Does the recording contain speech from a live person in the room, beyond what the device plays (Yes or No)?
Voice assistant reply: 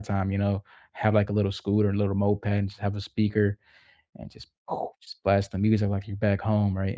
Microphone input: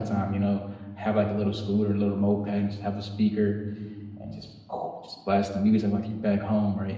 No